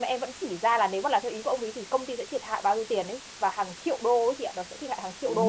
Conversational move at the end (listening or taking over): taking over